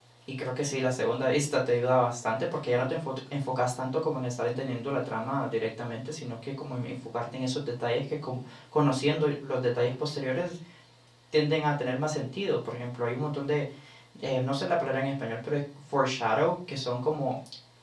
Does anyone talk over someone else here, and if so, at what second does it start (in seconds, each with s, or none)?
none